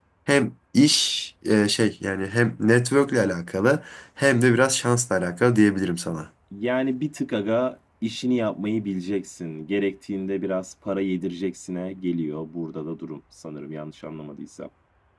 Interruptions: none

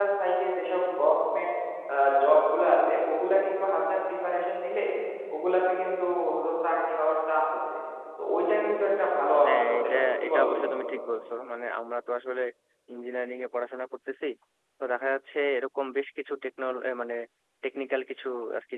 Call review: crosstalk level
present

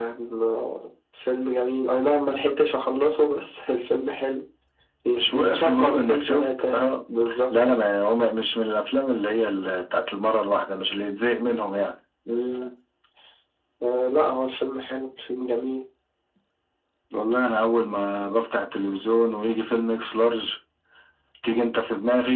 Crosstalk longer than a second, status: present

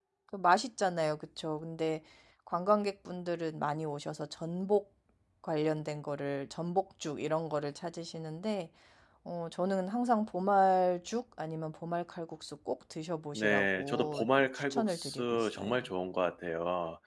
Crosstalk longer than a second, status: present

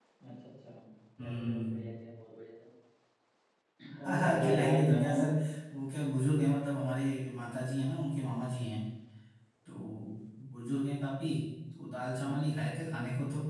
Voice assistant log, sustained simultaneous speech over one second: present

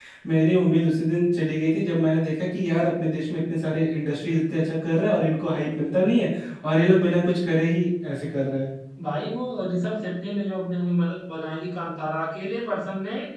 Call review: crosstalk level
none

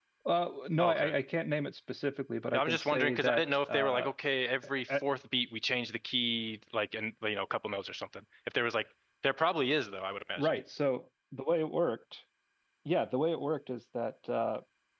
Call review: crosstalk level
present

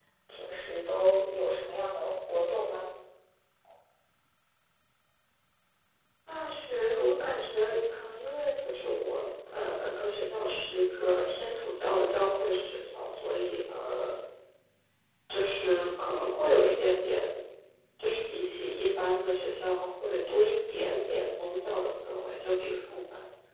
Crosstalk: none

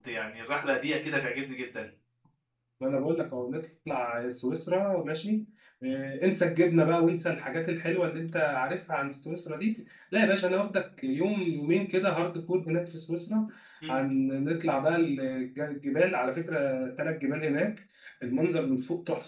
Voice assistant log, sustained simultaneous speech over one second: none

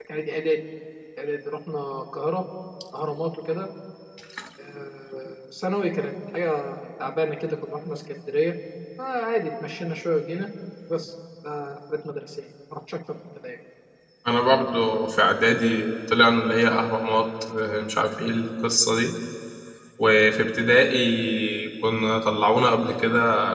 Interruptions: none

